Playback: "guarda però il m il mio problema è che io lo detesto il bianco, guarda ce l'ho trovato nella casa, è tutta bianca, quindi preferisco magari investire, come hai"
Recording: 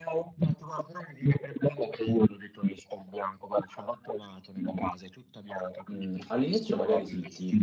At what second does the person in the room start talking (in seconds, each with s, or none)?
5.9 s